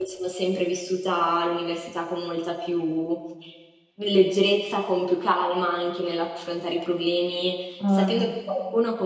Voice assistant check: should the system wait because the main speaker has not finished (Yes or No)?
Yes